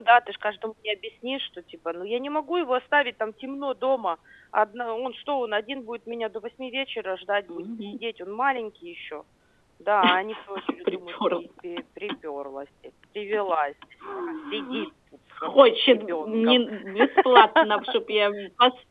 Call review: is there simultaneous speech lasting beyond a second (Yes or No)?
Yes